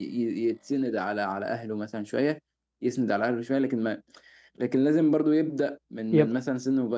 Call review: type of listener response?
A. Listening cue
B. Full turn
A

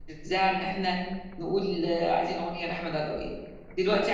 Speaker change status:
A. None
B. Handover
A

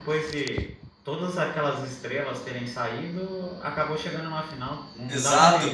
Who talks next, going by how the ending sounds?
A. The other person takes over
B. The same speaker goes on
A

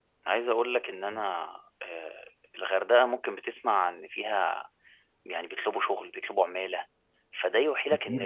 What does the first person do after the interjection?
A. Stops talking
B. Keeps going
B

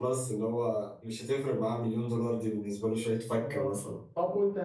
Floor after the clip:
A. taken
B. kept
A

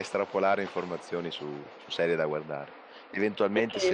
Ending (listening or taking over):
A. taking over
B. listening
B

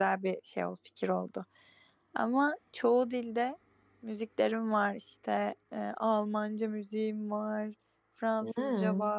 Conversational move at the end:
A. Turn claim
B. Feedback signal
B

